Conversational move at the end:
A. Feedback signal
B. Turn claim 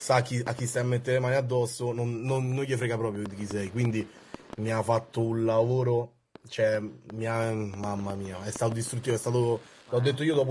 A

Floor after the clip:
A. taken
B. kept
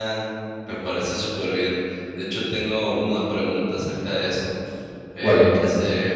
B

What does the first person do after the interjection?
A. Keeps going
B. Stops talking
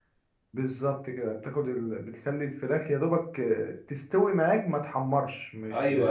B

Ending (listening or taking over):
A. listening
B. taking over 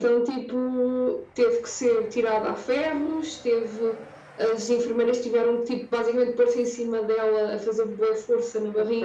A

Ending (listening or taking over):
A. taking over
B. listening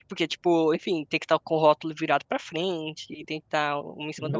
A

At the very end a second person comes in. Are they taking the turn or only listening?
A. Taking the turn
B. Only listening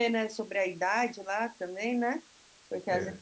B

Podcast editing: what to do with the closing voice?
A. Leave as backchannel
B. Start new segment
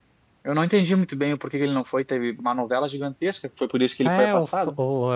B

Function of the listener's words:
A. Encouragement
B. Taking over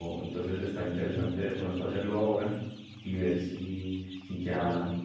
B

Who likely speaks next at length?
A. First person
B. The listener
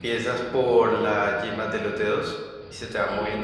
A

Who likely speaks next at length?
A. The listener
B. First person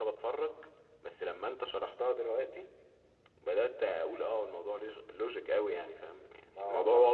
A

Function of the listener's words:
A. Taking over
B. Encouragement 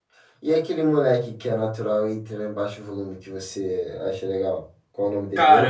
A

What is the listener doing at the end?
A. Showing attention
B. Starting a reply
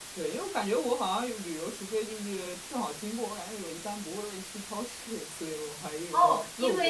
B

